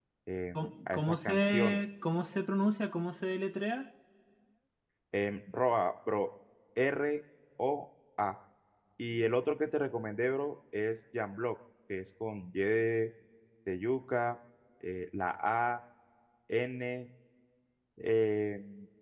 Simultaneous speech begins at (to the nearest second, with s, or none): 1 s